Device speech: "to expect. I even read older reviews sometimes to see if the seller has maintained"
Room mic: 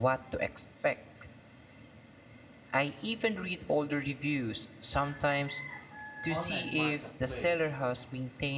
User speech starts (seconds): 6.3 s

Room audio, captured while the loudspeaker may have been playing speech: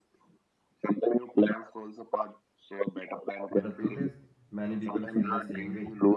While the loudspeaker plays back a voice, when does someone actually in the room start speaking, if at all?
3.5 s

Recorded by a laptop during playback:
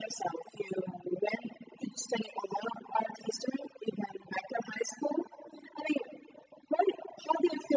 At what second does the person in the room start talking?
none

